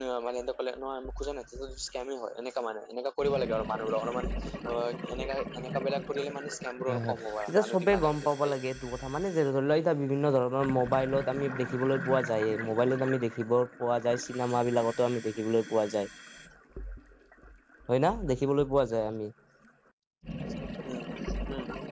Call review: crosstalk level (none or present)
present